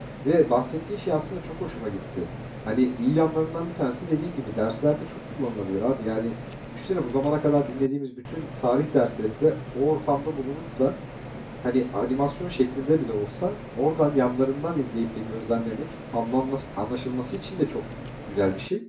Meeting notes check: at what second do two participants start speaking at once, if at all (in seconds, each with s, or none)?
none